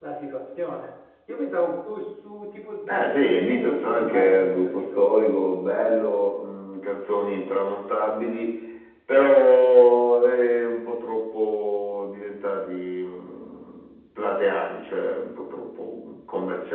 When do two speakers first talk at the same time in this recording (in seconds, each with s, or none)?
2.9 s